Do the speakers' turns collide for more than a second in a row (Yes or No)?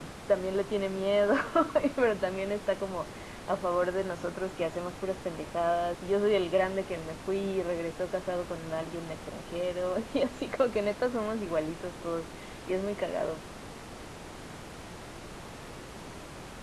No